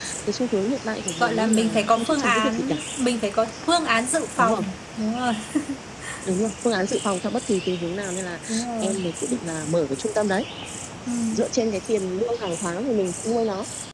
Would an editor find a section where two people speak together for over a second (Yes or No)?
Yes